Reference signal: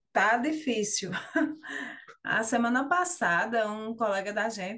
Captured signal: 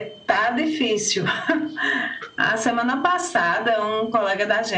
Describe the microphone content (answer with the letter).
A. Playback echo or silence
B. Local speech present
A